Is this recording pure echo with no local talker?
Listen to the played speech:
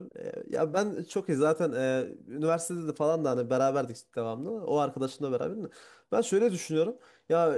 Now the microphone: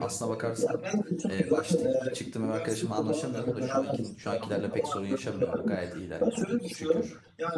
No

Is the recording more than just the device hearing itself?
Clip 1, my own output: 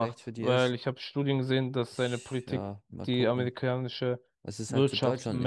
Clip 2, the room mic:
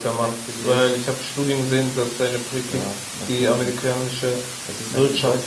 No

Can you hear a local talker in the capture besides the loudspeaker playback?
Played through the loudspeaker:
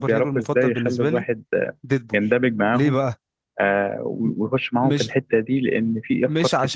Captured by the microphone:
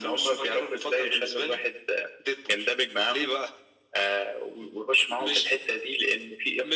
No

